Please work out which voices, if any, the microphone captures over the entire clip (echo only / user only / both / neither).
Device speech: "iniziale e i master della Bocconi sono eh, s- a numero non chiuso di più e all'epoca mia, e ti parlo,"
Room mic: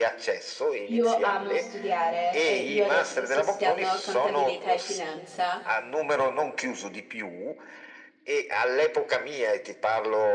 both